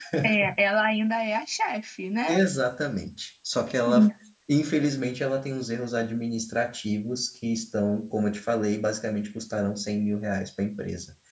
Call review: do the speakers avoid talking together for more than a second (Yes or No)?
Yes